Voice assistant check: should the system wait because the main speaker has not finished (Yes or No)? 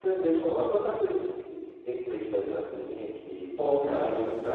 No